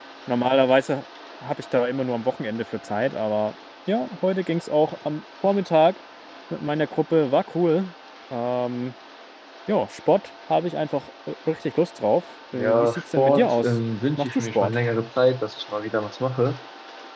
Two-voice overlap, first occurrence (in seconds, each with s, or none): 12.5 s